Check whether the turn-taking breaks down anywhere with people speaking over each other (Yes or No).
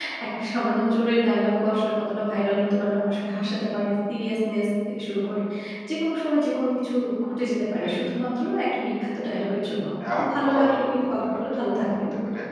Yes